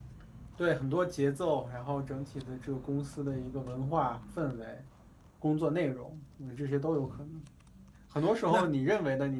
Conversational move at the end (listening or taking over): listening